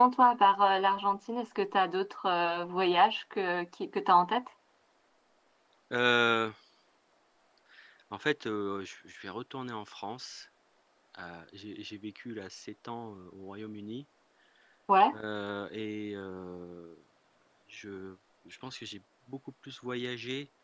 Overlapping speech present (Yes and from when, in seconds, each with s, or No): No